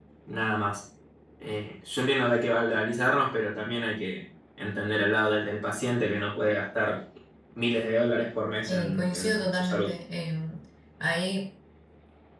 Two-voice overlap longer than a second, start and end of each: 8.7-9.9

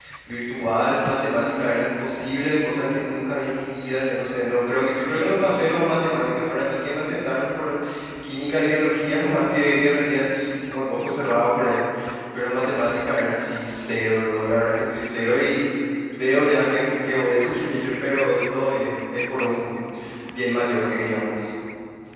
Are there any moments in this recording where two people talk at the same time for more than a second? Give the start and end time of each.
none

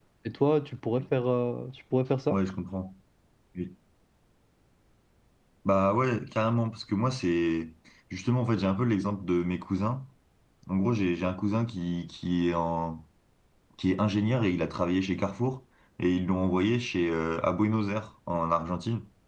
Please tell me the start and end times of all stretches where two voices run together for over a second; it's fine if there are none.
none

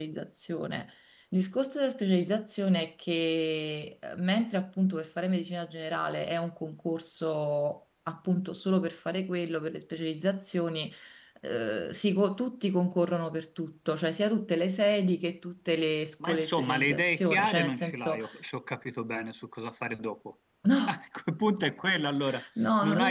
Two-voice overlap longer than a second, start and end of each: 16.3-18.2

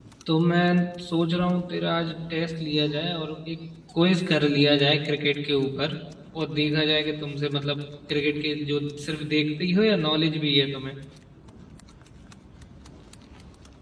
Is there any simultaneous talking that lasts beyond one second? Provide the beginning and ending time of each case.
none

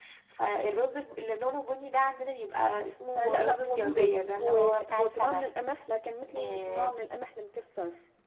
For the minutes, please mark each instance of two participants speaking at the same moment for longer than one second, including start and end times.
3.2-5.5

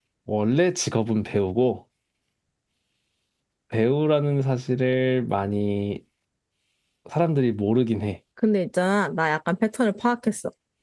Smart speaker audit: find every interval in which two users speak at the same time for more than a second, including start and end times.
none

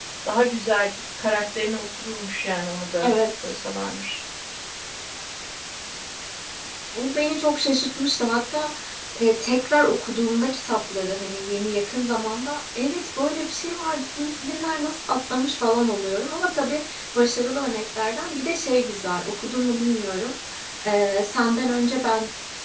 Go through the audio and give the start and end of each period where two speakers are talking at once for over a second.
none

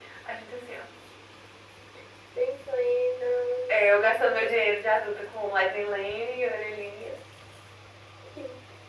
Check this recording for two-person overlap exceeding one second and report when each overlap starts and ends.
none

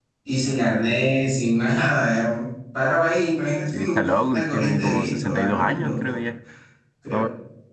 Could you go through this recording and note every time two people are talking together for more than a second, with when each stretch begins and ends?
3.7-6.1

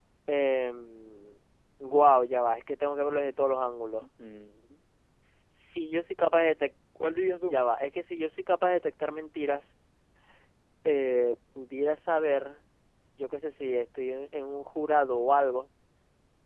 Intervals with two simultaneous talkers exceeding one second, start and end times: none

